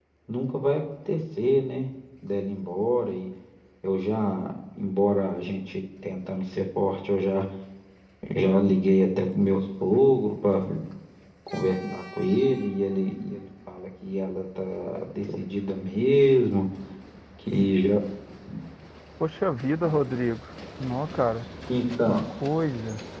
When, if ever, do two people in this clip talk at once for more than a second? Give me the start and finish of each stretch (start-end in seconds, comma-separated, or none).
none